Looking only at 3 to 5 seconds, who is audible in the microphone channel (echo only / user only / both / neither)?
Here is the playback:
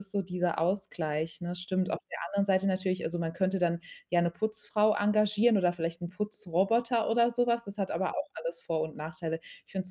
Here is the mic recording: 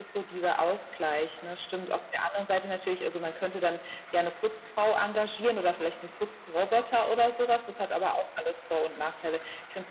echo only